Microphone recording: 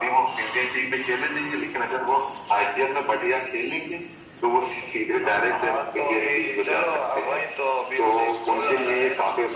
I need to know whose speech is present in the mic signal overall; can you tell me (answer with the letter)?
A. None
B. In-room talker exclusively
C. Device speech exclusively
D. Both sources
C